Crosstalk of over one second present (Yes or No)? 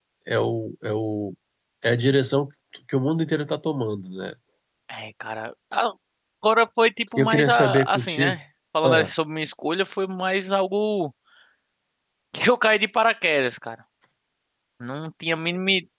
Yes